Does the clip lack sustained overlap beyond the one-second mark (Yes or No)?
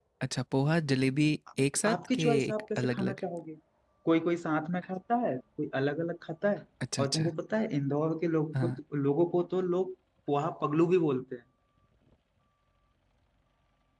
No